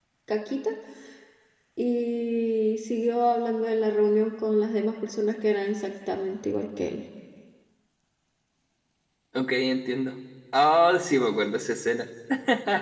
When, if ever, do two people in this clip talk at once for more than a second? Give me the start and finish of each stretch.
none

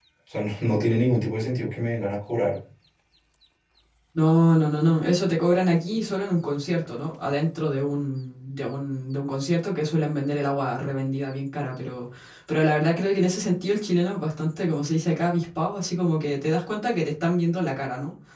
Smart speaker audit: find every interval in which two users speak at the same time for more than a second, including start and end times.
none

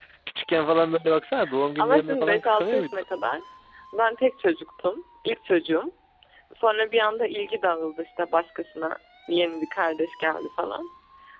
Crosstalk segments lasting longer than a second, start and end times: 1.8-3.0

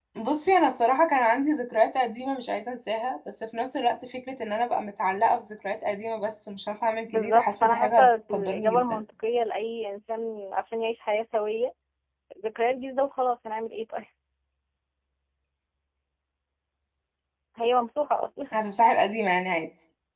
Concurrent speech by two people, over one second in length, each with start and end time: 7.1-9.0

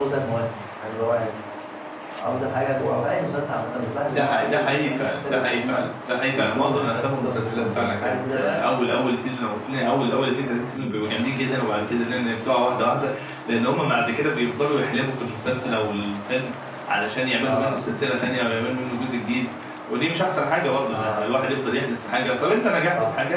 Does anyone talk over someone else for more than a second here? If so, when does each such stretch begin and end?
4.1-5.7, 6.3-8.6

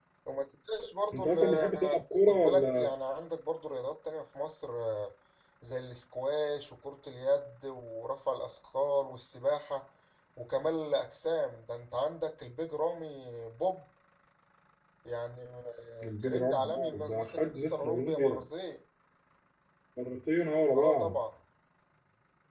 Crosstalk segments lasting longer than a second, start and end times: 1.1-2.9, 16.0-18.4

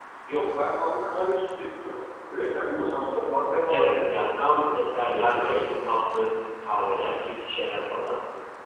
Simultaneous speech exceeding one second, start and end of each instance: 3.7-5.6

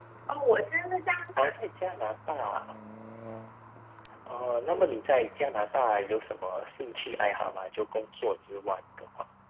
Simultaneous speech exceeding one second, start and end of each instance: none

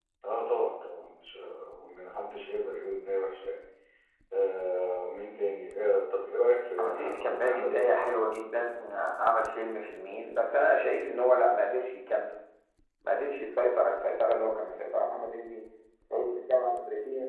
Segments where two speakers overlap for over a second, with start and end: 6.8-8.0

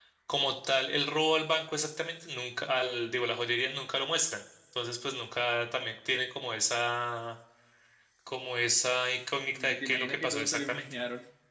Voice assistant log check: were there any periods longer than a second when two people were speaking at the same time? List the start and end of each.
9.5-10.8

